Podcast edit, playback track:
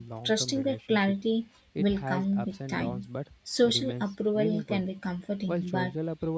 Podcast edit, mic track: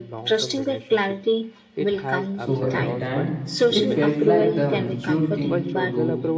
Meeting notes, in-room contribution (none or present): present